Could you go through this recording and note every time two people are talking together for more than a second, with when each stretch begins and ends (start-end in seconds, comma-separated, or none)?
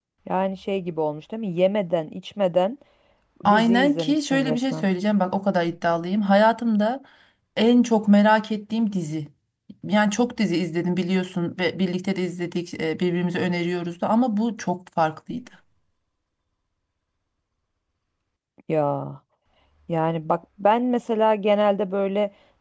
3.5-4.8